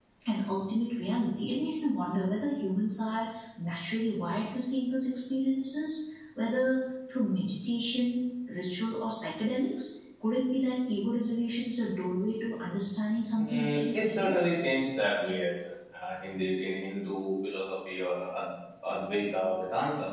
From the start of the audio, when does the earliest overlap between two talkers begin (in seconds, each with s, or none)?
13.3 s